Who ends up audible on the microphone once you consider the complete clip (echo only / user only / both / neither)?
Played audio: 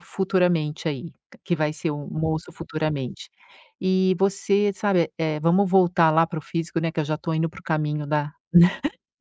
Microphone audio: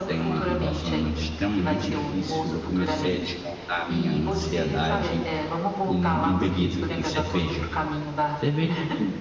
both